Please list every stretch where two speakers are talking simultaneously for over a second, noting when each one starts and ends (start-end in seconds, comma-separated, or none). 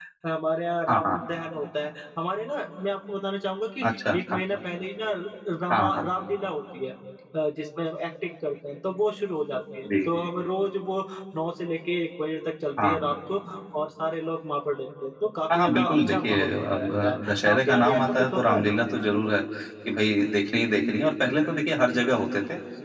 15.5-18.6